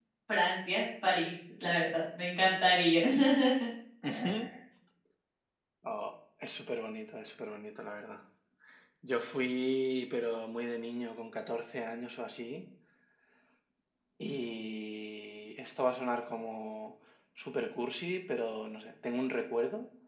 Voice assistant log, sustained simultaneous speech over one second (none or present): none